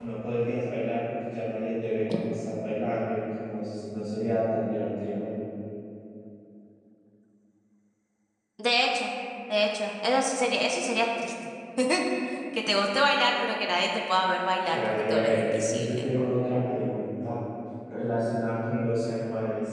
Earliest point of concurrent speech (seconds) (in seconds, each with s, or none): 14.6 s